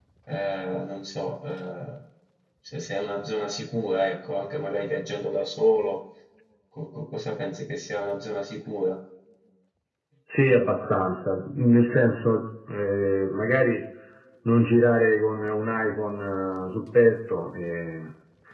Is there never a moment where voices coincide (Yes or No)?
Yes